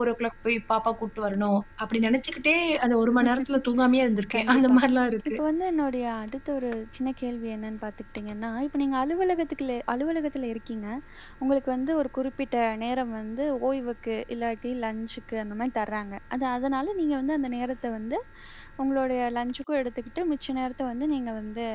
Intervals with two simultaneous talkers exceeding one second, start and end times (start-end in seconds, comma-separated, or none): none